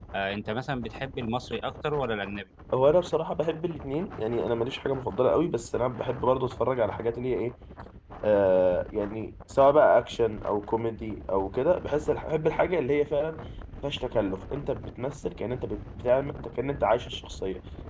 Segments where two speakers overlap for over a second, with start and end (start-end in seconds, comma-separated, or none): none